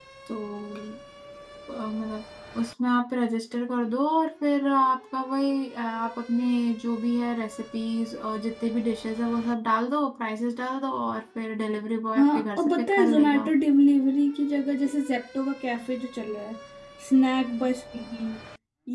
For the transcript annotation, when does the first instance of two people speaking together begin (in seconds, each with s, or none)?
12.2 s